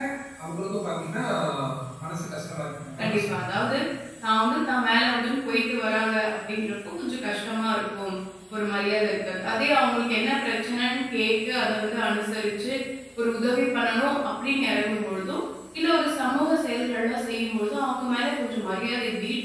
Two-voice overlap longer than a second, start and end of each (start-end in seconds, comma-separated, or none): none